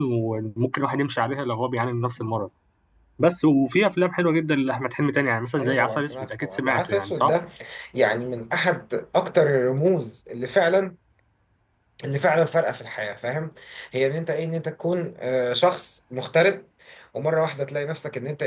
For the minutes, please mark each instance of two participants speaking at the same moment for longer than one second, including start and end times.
5.6-7.3

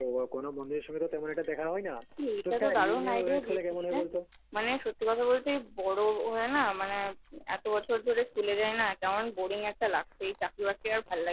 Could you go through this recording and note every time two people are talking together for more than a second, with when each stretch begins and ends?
2.5-4.0

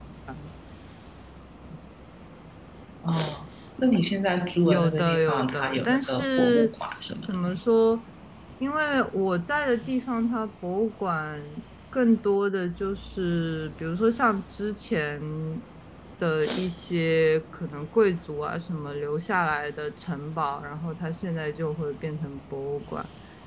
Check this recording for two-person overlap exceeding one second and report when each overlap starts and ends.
4.6-6.7

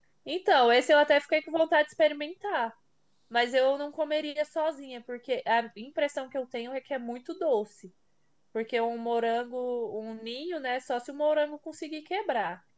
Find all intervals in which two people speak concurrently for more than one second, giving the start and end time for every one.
none

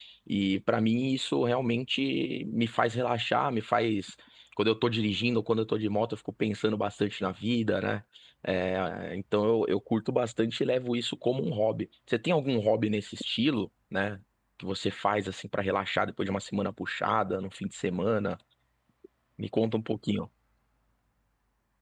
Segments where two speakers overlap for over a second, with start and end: none

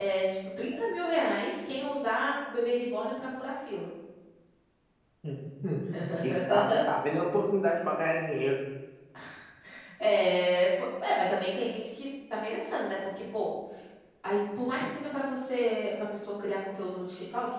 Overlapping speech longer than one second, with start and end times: none

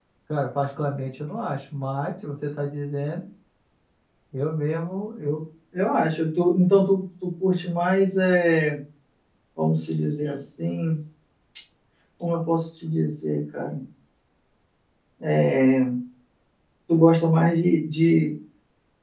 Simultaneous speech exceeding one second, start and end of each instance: none

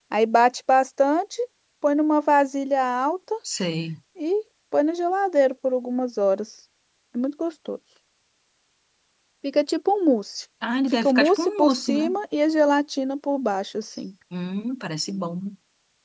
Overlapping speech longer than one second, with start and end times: 10.9-12.2

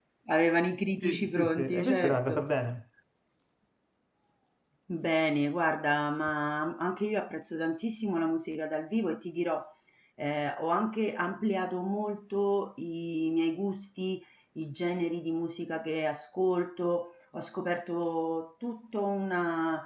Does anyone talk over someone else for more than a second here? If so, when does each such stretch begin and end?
1.0-2.4

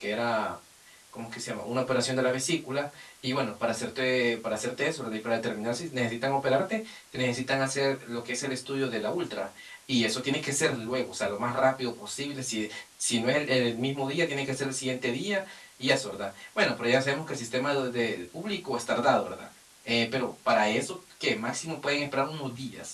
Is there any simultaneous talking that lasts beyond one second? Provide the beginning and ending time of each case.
none

